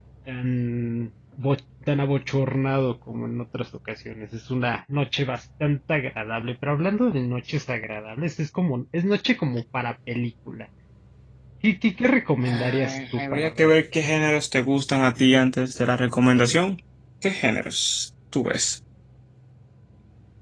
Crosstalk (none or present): present